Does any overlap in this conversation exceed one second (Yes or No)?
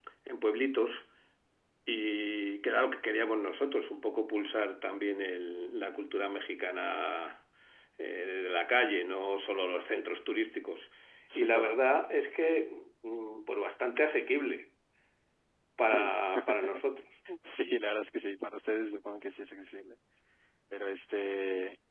No